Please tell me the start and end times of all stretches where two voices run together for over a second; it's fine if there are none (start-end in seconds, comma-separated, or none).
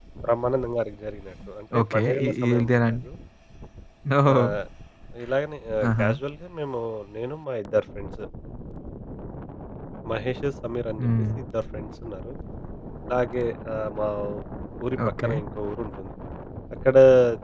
1.8-3.1